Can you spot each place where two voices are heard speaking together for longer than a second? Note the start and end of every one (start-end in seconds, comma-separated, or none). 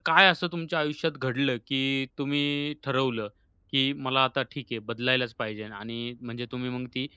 none